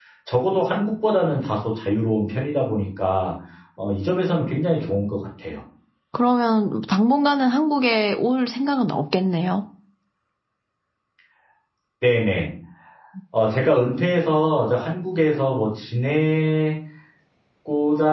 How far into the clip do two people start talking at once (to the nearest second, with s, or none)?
none